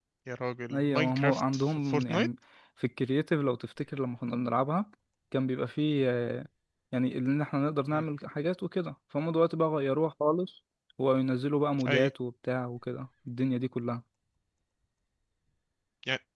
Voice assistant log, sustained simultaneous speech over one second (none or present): present